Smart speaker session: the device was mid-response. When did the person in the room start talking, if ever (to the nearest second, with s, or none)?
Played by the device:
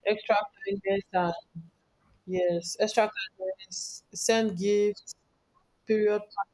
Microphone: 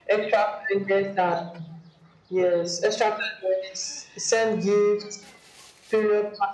none